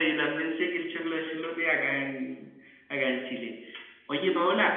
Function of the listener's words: listening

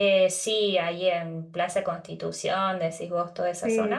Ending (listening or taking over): taking over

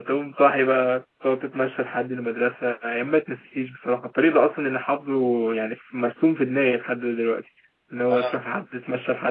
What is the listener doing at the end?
listening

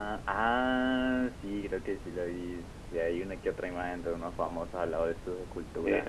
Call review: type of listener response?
taking over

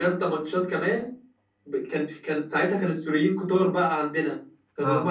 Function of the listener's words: listening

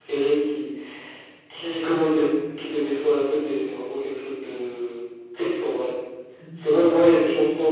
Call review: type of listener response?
listening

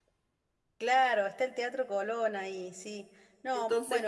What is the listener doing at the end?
taking over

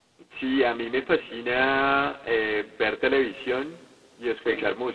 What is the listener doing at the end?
listening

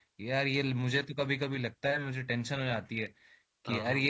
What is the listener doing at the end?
listening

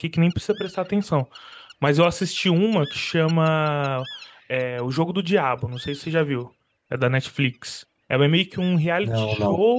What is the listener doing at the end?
listening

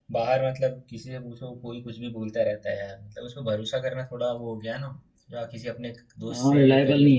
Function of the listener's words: taking over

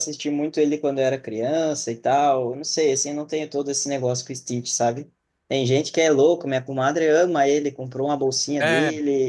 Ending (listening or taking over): listening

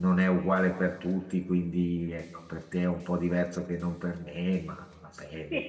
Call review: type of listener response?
taking over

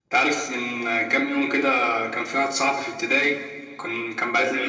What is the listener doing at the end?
listening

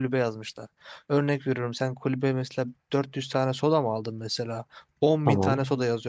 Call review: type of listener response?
listening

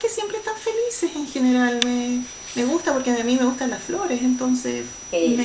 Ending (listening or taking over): taking over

